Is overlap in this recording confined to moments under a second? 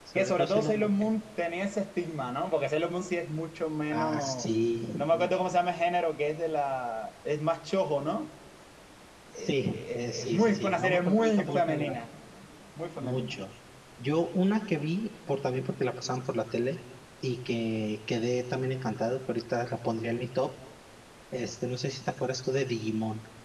No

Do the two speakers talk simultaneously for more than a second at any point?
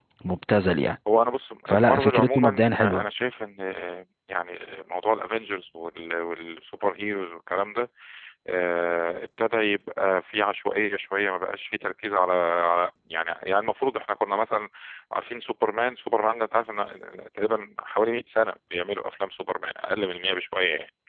Yes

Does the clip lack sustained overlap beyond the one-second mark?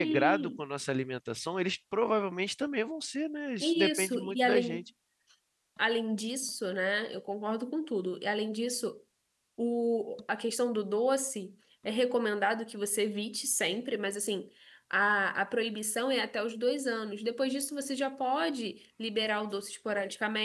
No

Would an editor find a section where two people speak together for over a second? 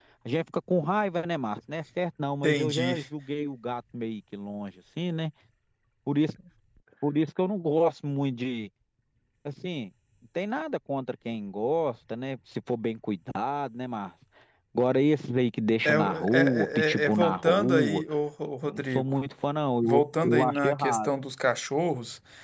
Yes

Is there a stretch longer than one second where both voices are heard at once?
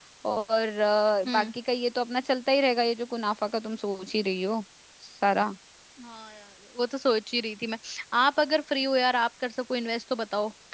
No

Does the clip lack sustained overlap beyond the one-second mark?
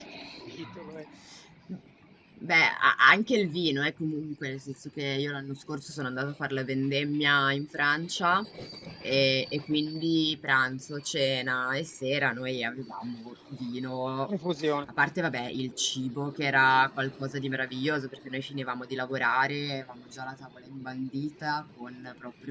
Yes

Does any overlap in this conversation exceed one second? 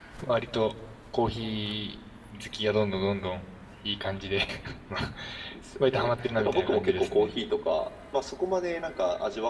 Yes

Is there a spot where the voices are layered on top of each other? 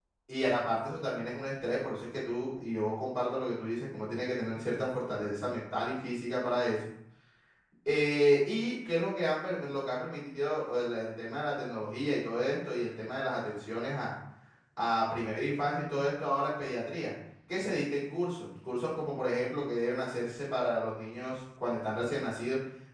No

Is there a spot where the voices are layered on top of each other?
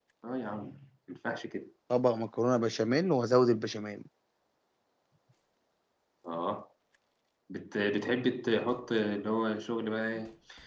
No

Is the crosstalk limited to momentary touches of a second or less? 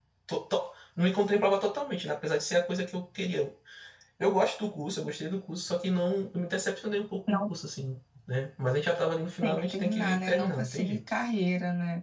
No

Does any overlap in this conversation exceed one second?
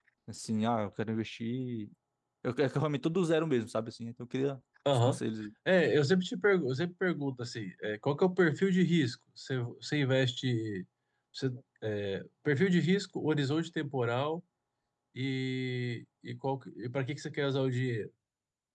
No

